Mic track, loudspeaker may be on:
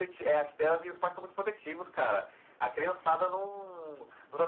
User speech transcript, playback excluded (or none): none